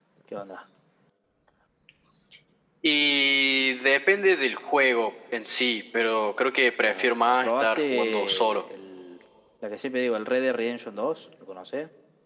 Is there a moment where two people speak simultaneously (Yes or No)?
Yes